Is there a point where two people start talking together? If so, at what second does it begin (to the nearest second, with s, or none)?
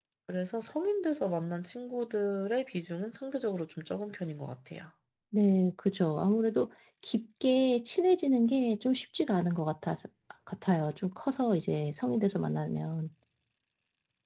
none